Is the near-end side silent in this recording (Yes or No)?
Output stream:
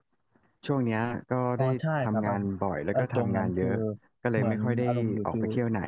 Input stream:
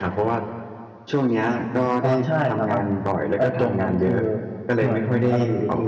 Yes